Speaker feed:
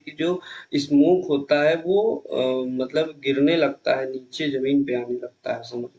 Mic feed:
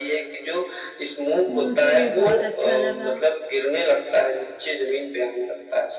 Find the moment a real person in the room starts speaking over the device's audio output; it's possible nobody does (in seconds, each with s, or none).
1.5 s